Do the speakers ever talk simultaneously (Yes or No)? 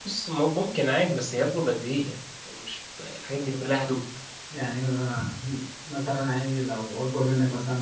No